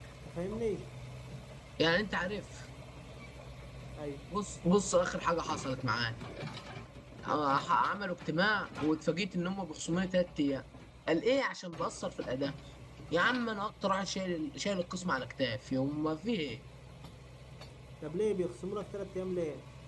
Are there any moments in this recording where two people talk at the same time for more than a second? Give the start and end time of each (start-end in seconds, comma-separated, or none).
none